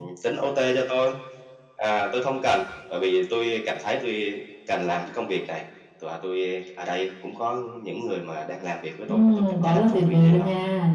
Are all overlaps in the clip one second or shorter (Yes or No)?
No